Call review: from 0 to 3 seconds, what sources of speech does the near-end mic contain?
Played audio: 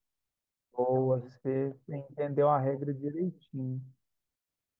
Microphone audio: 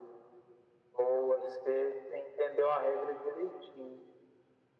echo only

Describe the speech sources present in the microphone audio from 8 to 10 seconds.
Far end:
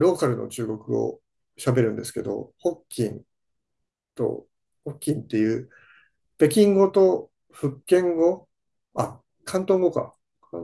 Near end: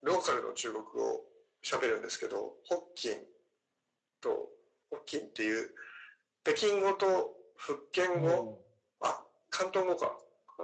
both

